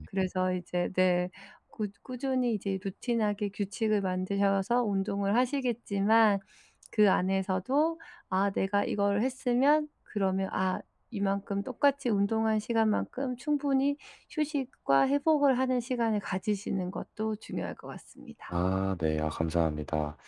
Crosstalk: none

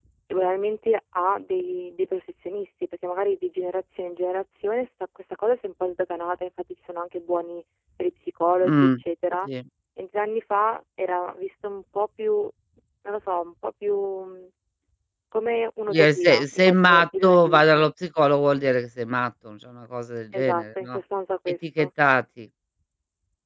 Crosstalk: present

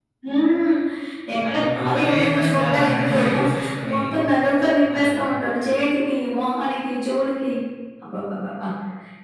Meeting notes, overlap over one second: present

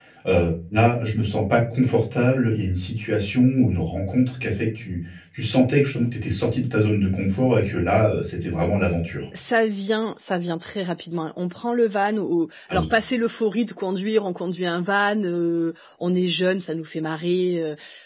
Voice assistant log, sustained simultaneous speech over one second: none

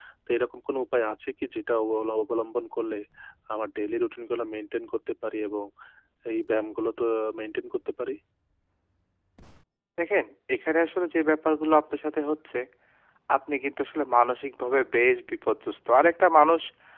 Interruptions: none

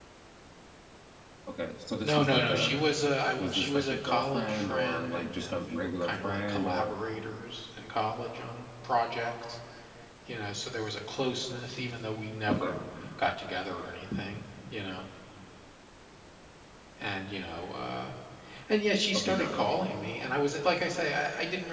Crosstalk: present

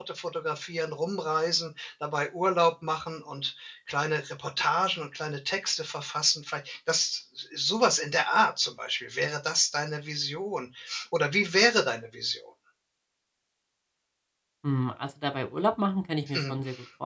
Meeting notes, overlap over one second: none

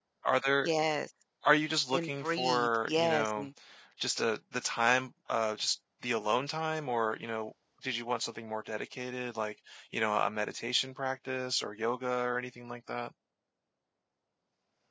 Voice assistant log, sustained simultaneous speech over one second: present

